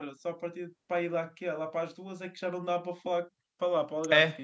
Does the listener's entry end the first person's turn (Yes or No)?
Yes